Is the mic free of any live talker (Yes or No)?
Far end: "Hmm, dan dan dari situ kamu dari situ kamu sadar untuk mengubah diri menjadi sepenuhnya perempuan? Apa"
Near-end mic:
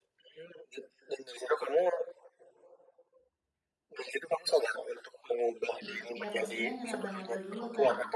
No